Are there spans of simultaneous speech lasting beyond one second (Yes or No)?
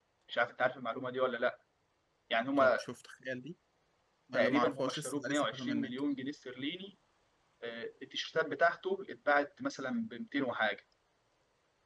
Yes